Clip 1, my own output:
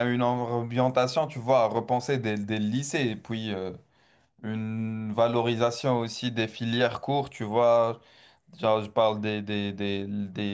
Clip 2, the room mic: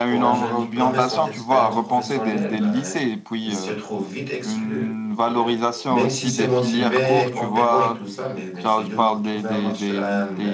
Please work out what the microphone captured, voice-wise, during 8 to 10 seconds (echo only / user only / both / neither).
both